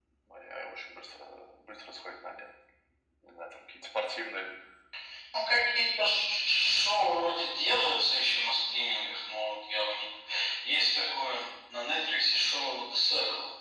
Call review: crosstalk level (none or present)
none